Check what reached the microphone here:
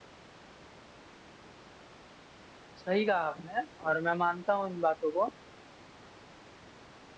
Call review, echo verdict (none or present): none